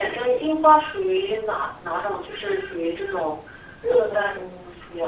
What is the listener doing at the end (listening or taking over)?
taking over